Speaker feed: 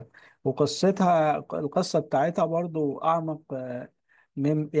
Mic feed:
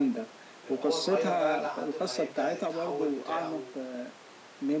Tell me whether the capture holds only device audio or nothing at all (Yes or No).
No